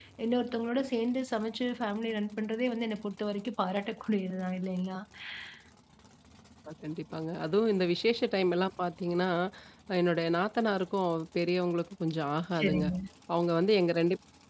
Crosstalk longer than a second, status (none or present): none